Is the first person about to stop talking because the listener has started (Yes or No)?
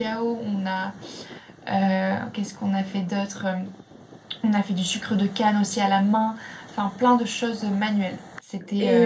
Yes